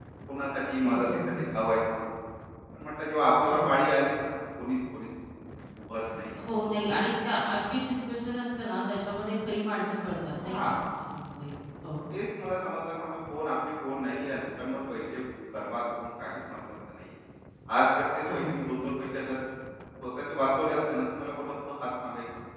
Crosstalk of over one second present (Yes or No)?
No